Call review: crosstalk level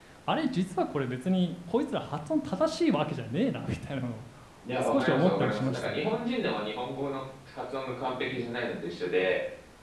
present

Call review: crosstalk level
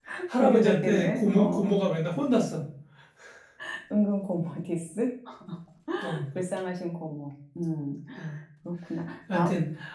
present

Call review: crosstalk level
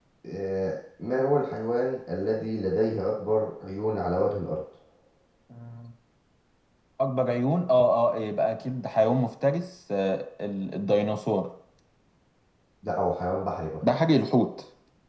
none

